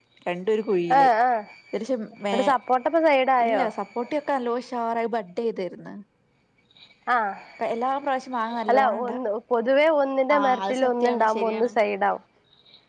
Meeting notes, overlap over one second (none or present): present